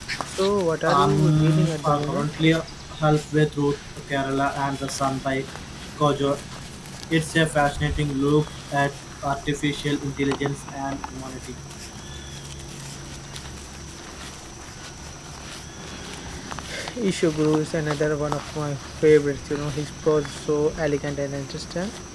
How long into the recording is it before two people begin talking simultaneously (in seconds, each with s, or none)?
0.8 s